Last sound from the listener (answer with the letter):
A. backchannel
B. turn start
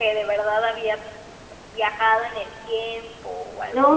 B